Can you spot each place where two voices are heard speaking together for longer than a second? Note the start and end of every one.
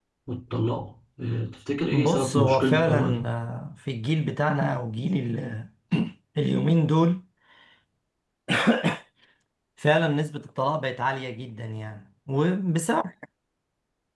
1.9-3.2

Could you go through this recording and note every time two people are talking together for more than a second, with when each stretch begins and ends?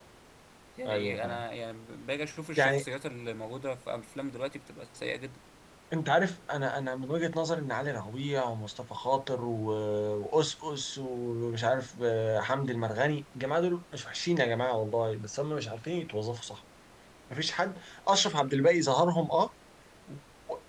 none

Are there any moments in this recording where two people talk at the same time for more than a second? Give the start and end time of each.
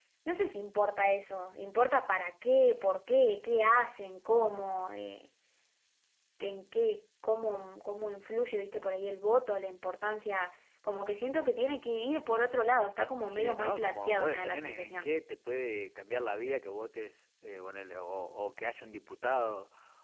13.3-15.1

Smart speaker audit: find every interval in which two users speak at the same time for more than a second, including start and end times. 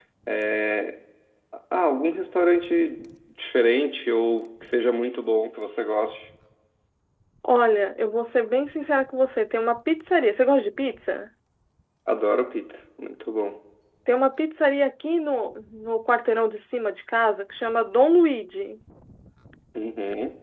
none

